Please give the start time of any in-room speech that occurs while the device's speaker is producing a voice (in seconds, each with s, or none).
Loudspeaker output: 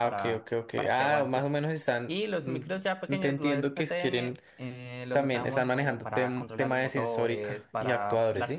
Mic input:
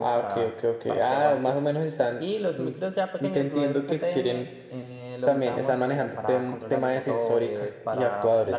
none